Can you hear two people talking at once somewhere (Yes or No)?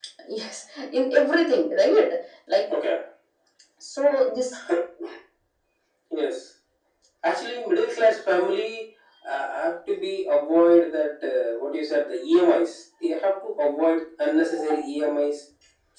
No